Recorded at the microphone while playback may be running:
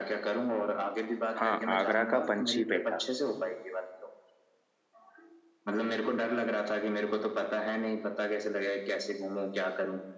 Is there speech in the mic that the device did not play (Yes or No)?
Yes